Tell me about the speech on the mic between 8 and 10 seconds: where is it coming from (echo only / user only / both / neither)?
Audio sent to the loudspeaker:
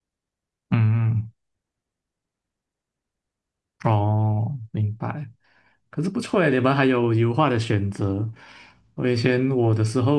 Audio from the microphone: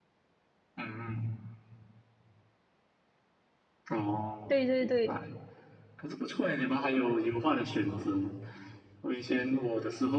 echo only